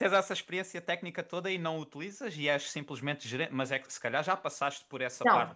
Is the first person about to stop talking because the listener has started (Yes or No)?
Yes